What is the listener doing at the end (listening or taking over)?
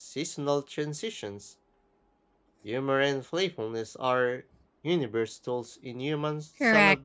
taking over